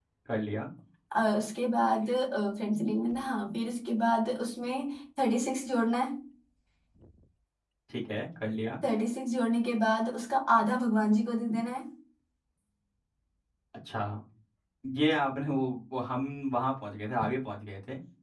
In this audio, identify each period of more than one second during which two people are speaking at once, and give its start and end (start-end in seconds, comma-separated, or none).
none